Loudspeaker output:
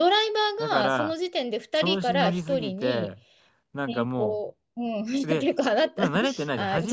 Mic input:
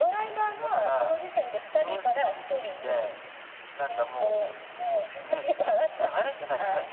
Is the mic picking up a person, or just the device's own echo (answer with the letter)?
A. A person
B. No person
B